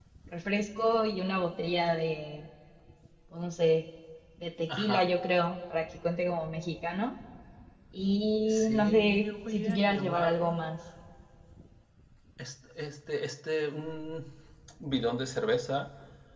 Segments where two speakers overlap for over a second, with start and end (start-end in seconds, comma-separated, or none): 8.5-10.5